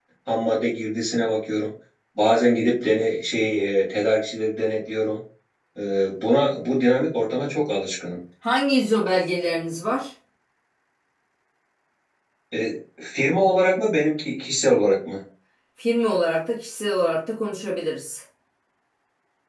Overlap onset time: none

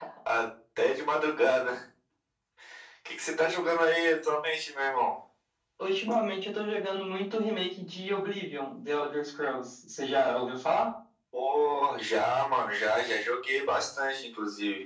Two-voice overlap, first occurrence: none

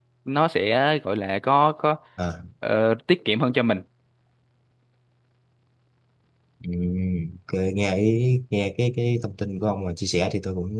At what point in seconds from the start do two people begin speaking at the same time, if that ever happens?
none

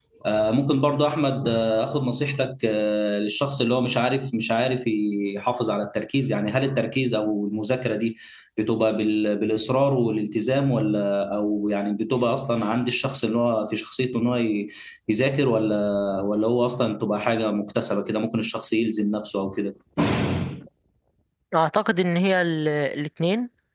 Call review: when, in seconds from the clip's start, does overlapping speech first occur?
none

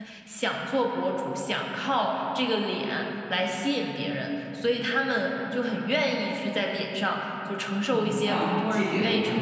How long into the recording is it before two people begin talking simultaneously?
7.9 s

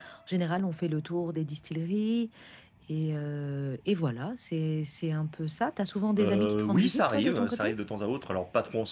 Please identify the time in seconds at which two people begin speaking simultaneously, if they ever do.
6.2 s

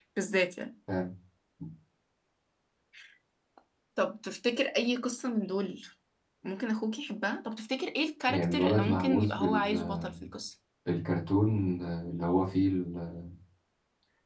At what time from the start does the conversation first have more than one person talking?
8.3 s

